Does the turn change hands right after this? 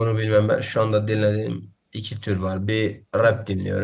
No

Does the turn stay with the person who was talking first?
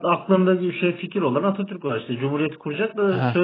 No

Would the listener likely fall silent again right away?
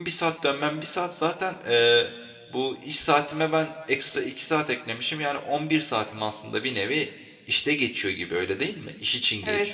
No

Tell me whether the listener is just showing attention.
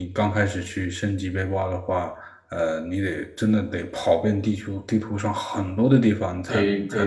Yes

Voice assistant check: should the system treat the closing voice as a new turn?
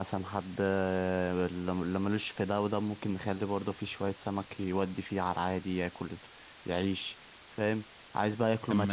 No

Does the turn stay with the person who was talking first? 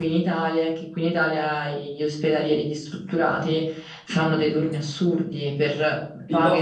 Yes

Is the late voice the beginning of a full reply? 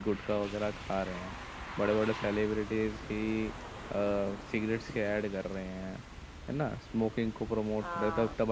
No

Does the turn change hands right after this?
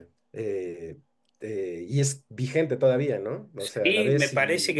Yes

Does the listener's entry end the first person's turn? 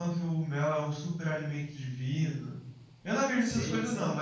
No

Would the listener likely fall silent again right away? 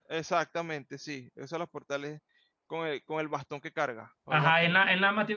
No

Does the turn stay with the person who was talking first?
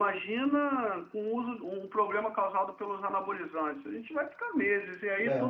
Yes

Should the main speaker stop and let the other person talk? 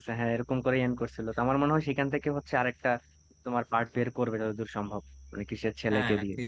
Yes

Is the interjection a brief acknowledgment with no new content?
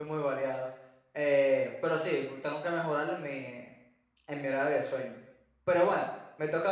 Yes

